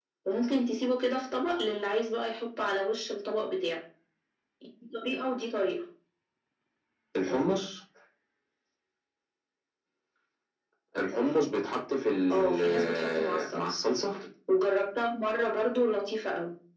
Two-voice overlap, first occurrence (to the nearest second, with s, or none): 12 s